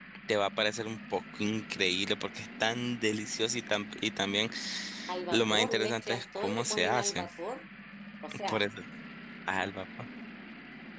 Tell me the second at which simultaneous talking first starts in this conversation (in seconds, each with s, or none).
5.3 s